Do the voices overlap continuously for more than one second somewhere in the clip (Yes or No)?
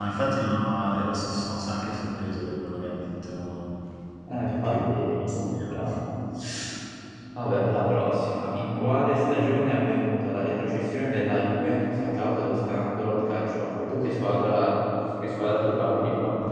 Yes